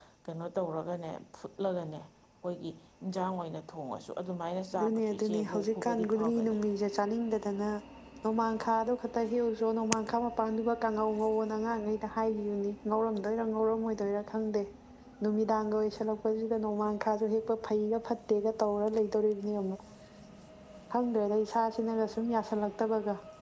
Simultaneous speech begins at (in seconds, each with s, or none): 4.7 s